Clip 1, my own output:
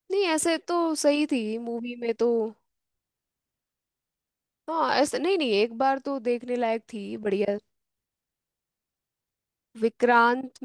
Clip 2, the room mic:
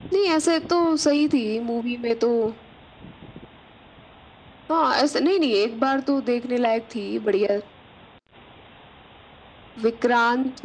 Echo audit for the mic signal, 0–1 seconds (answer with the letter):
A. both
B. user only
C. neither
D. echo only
D